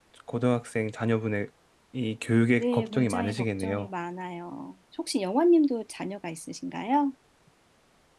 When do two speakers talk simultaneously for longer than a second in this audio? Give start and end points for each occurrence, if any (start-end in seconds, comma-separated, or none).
2.6-3.9